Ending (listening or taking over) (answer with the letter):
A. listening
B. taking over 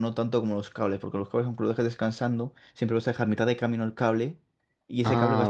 B